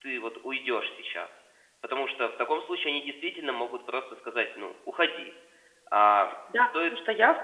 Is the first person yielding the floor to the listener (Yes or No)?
Yes